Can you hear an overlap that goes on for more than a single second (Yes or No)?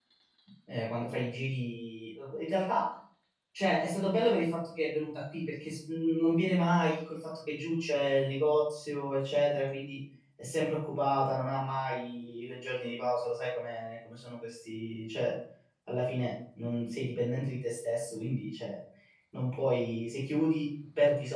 No